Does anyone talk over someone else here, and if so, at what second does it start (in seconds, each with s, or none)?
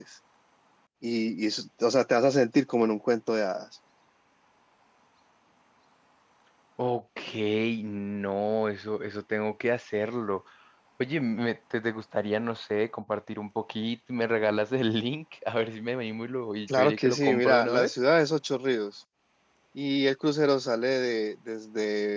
16.7 s